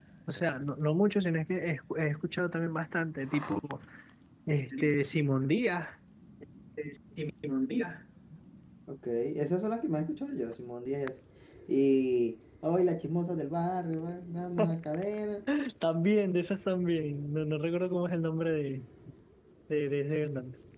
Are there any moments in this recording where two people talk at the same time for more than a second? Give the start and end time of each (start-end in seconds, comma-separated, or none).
none